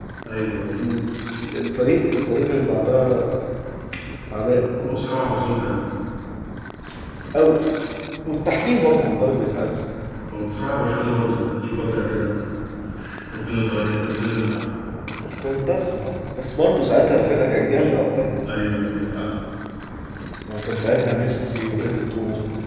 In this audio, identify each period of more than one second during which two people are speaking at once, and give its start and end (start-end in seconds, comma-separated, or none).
none